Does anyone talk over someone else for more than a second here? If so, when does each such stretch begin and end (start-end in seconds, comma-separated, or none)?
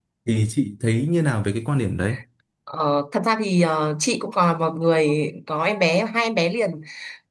none